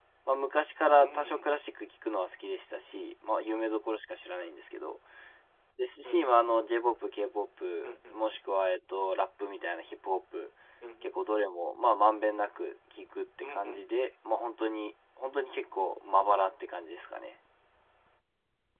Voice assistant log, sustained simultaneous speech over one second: none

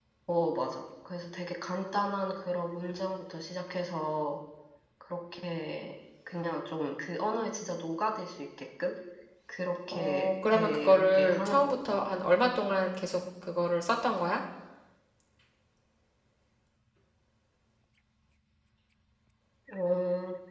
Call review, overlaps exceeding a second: present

